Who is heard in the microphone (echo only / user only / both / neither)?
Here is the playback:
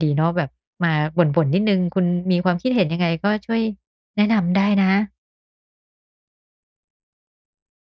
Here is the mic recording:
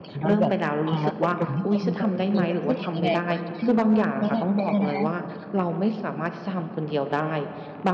both